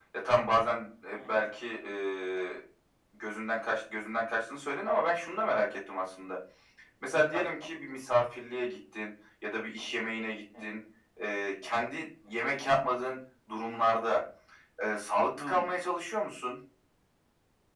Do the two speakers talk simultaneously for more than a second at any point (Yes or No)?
No